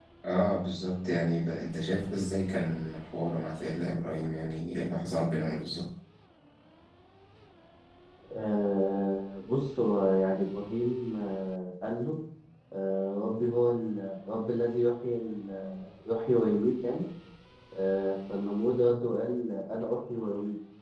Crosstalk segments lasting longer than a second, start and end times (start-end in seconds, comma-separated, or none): none